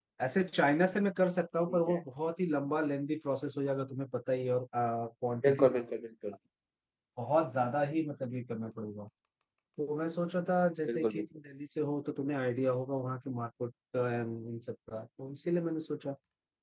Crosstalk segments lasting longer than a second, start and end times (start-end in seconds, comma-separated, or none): none